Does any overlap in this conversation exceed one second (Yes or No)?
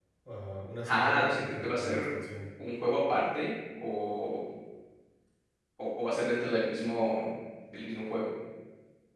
Yes